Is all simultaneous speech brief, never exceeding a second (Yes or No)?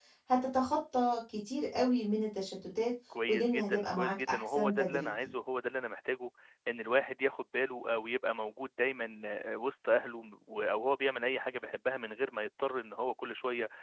No